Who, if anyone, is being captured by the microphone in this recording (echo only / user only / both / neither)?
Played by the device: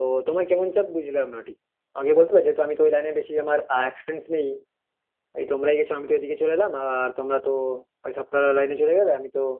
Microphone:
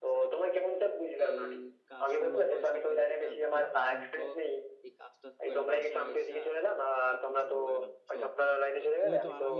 both